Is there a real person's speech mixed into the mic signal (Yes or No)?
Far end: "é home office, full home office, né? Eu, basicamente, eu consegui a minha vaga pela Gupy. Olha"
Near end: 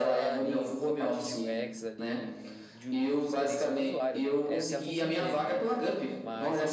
Yes